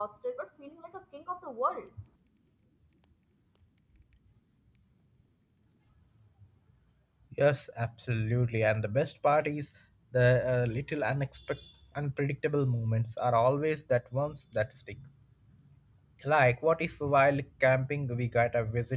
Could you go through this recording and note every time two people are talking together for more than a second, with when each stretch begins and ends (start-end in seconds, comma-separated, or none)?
none